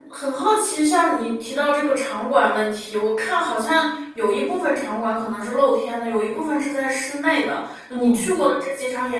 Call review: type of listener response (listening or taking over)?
listening